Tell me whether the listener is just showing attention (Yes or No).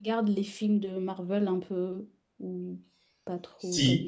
No